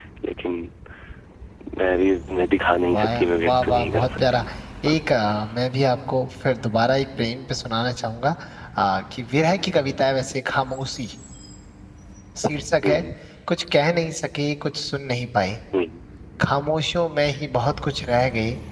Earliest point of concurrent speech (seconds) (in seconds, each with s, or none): 2.9 s